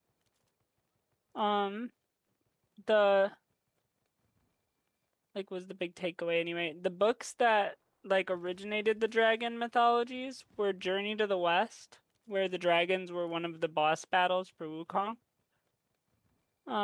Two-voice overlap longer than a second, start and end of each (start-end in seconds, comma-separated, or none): none